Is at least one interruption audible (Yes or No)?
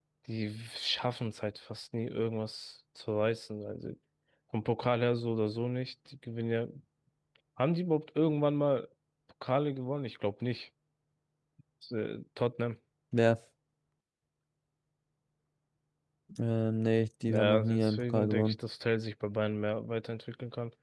Yes